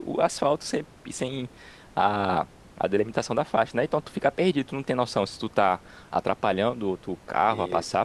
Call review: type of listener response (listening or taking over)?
listening